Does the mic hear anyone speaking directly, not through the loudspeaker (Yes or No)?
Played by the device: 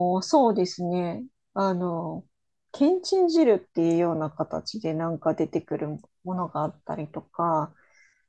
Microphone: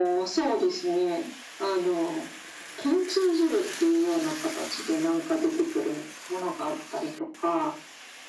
No